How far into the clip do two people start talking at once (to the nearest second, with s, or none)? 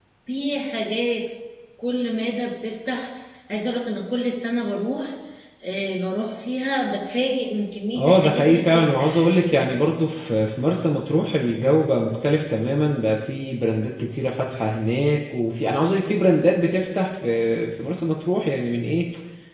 8 s